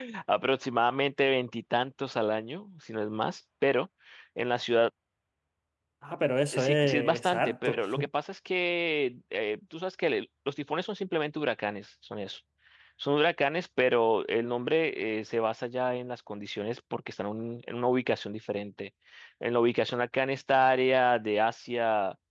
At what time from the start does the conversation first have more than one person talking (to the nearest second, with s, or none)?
7 s